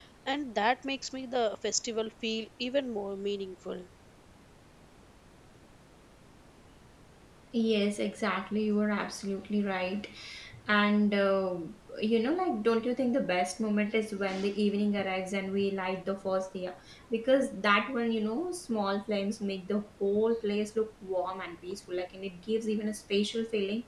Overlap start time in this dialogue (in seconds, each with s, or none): none